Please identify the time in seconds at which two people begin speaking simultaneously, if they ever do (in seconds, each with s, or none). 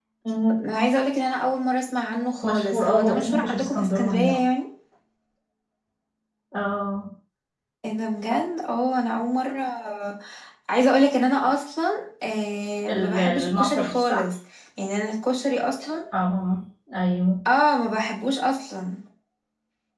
2.4 s